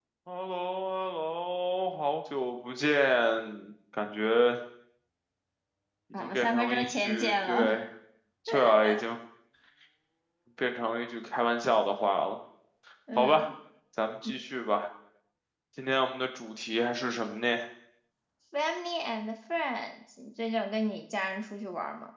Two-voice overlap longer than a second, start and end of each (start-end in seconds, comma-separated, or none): 6.2-7.8